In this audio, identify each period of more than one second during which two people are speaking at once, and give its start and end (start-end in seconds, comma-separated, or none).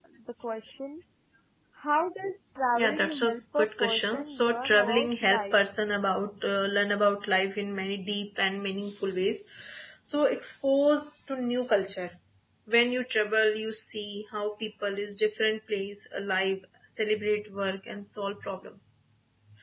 2.7-5.6